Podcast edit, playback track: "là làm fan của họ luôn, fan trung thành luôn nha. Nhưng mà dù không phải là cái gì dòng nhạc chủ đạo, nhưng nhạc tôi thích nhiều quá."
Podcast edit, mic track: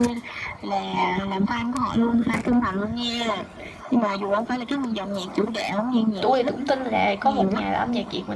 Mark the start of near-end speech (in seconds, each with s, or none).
6.2 s